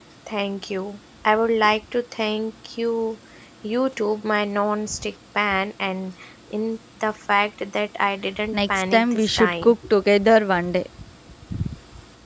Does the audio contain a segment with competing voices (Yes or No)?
Yes